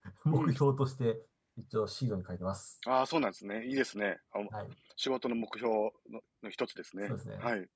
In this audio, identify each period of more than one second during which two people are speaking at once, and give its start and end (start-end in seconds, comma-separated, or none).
none